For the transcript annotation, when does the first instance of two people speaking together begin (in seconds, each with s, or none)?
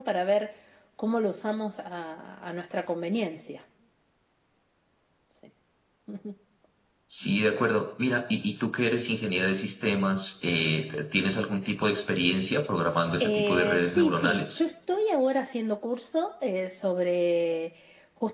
13.2 s